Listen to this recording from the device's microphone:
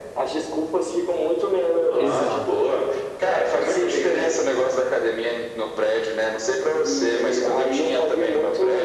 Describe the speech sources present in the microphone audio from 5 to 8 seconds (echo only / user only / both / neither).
echo only